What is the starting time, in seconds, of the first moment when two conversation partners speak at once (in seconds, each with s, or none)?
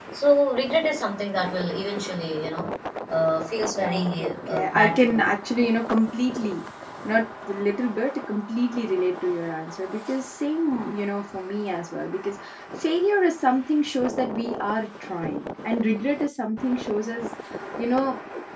3.8 s